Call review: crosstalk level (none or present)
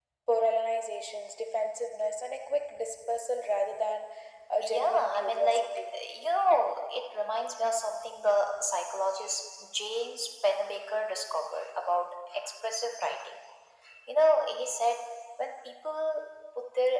present